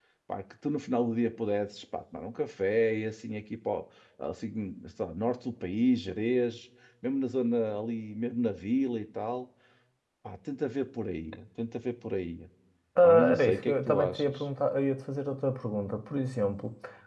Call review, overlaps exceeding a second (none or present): present